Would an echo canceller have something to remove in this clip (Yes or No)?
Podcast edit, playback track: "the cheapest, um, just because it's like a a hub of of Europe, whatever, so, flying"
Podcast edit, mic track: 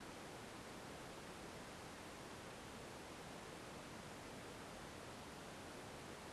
No